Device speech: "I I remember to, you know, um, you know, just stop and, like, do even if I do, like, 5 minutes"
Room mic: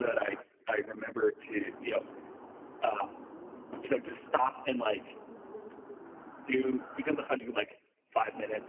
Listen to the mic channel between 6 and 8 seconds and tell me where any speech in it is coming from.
echo only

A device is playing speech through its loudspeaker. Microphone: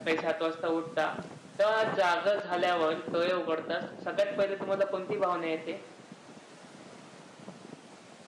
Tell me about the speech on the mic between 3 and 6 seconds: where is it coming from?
echo only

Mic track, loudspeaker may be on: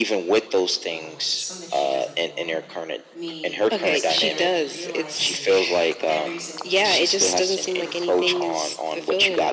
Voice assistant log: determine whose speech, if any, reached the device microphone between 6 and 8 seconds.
both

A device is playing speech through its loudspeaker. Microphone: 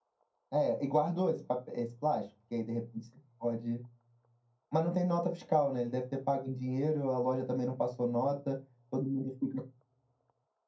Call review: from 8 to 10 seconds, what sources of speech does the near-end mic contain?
user only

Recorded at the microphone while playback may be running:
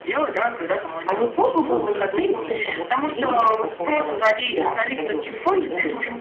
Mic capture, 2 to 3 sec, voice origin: both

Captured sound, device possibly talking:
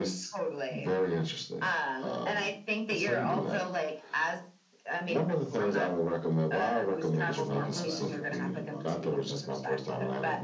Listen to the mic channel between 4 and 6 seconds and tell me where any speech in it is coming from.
echo only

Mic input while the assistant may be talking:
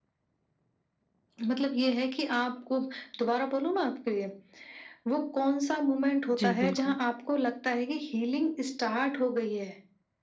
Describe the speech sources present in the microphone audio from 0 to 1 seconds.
neither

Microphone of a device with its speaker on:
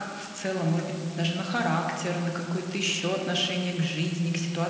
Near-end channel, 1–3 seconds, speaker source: echo only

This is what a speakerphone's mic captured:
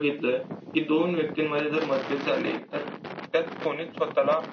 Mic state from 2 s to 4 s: echo only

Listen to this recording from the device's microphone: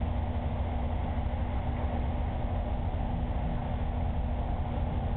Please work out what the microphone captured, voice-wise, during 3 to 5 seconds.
neither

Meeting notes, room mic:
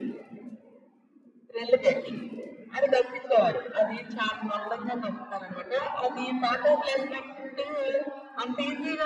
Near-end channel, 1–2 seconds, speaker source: echo only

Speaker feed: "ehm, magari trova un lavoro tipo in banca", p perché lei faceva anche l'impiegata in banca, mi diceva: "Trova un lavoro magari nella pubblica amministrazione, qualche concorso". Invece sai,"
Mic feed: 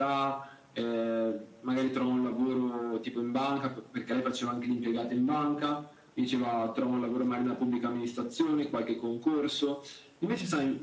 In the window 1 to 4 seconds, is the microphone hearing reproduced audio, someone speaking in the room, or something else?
echo only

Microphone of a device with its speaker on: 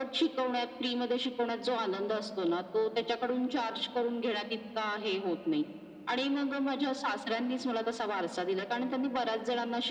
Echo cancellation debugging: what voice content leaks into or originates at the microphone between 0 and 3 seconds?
echo only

